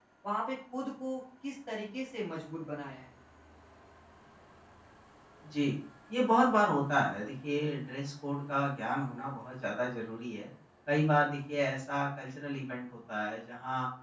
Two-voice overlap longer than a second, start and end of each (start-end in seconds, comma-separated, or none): none